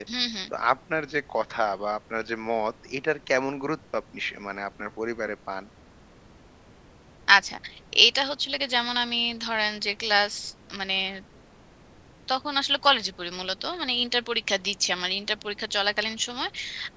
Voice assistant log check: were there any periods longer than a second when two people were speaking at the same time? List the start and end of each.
none

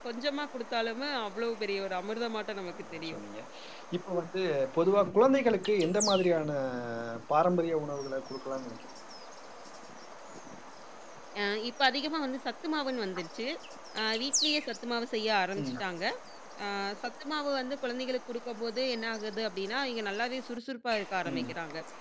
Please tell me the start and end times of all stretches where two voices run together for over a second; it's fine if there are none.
none

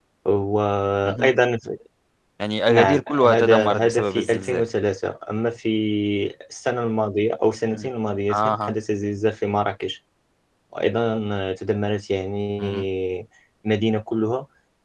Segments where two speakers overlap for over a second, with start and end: 2.7-4.6

